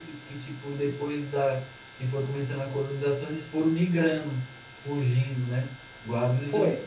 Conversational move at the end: taking over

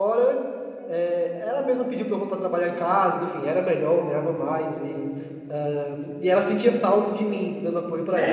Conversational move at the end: taking over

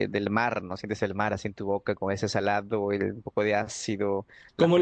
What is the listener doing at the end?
taking over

